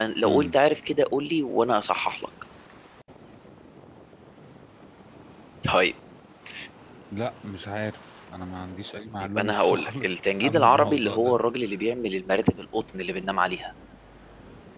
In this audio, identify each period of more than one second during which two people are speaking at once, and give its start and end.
9.2-11.4

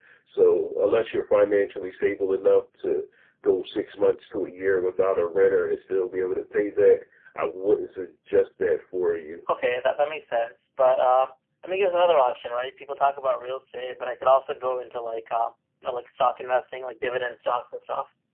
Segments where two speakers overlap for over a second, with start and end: none

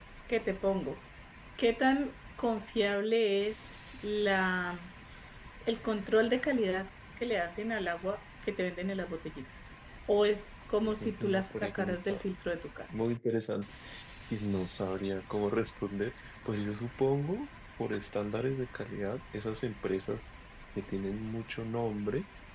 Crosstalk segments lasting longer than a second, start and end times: 10.8-12.2

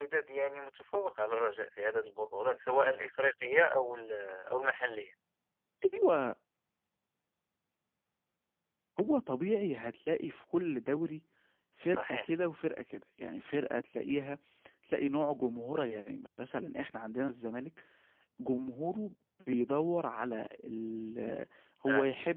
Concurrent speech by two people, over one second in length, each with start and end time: none

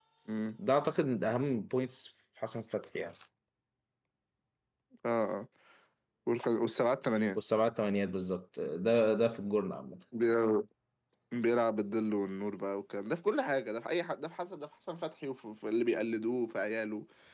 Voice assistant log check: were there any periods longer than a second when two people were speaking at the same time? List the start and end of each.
none

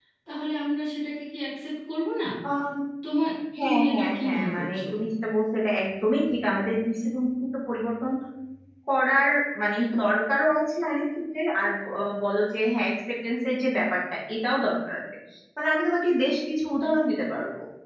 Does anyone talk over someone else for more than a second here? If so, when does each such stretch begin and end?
3.6-4.8

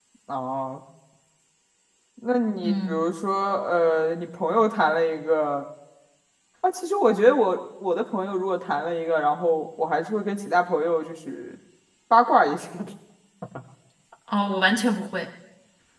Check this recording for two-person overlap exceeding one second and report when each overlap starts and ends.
none

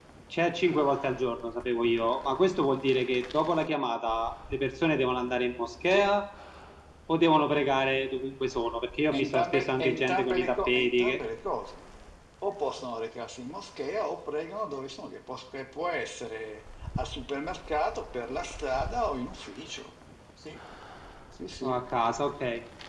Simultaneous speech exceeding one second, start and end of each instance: 9.1-11.2

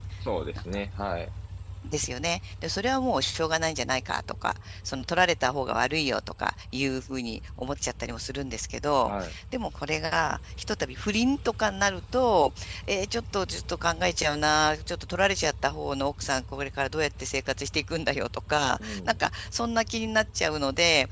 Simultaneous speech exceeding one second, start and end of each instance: none

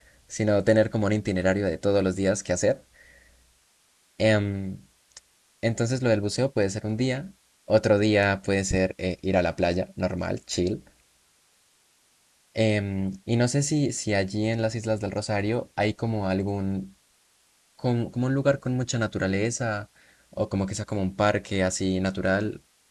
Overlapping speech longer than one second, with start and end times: none

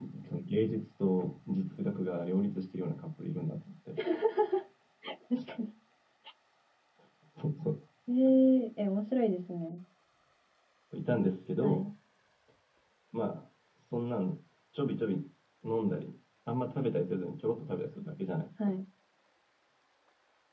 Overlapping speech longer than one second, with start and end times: none

